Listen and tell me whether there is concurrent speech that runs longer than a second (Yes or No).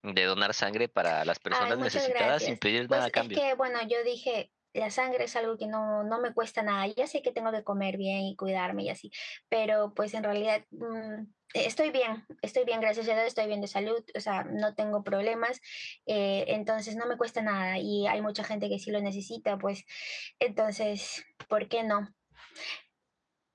Yes